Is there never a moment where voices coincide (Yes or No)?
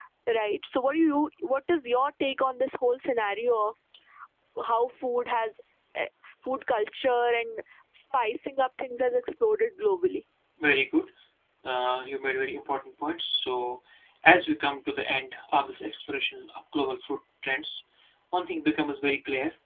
Yes